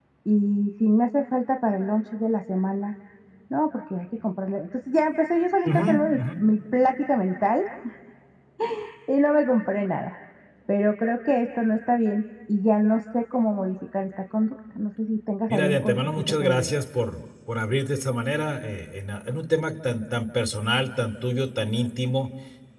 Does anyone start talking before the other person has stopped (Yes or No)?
Yes